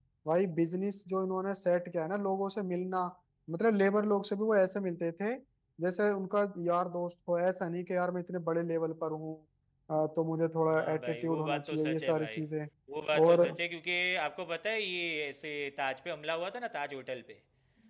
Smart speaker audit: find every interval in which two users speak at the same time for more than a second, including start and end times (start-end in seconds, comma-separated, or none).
10.7-12.4